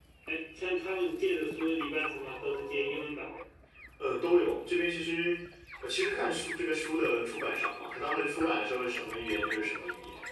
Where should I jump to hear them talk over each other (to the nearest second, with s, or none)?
none